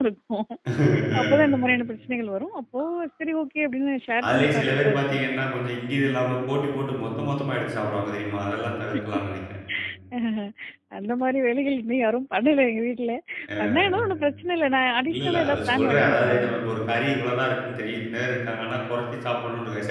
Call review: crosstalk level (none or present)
present